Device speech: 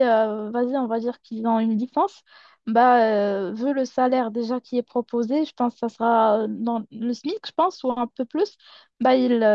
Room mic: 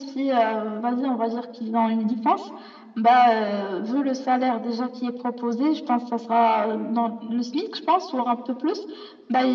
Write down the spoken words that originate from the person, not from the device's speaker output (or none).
none